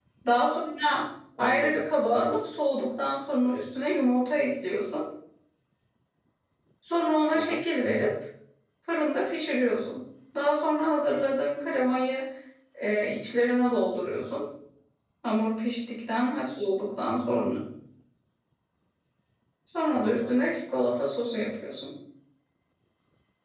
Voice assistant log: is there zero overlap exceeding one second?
Yes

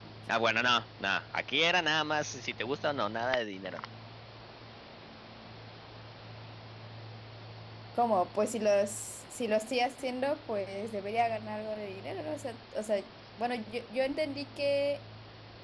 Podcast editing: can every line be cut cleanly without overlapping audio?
Yes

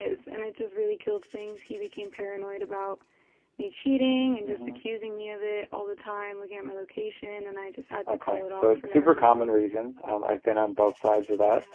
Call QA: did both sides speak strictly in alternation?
No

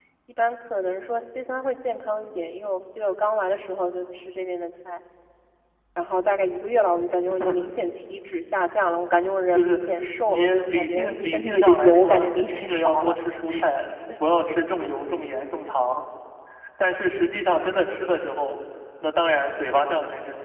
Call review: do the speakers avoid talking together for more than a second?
No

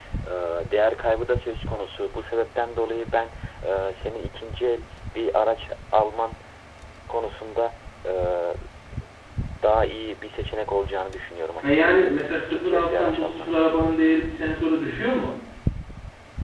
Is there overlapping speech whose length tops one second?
Yes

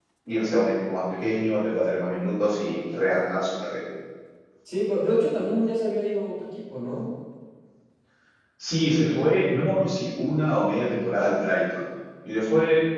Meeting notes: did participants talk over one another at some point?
No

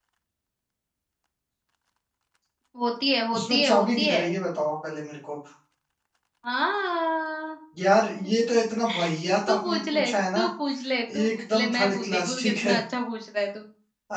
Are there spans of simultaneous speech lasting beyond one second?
Yes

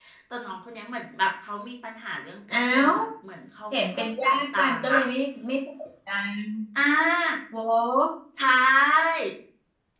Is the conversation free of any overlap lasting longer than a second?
No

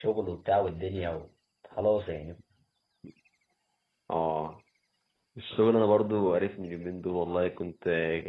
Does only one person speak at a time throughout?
Yes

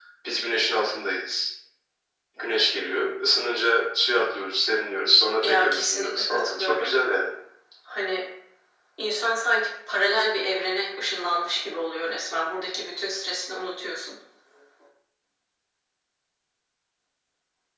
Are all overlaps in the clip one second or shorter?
No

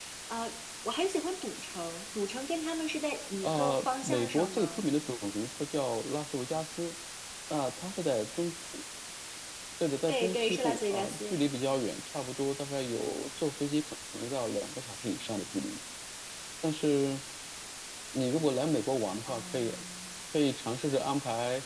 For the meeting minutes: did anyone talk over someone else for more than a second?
Yes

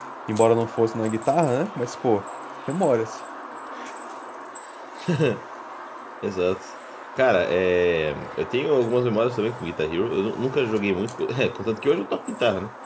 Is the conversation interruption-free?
Yes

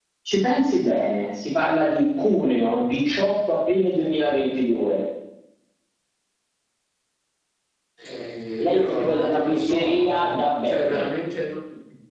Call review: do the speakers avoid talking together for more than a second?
No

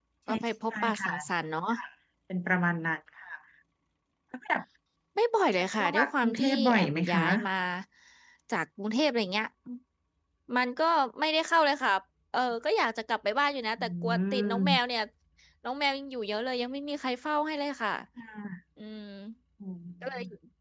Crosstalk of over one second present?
Yes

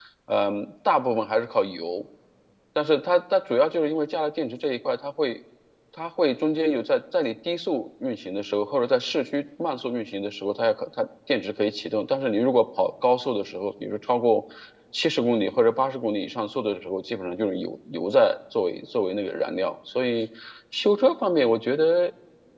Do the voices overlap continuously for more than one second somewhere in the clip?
No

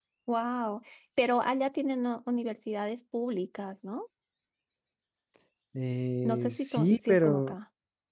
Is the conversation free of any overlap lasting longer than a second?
No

